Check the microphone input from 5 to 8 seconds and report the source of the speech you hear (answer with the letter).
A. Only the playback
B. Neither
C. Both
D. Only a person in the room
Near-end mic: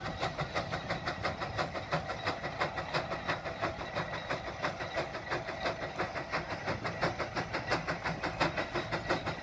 B